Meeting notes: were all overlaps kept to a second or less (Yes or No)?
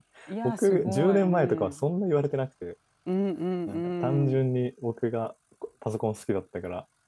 No